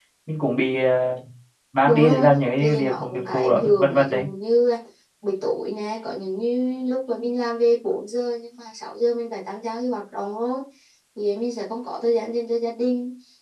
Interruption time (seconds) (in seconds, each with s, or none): 1.8 s